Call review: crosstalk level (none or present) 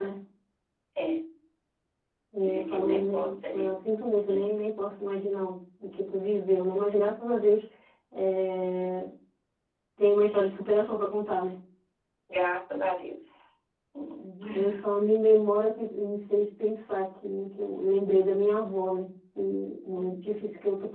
present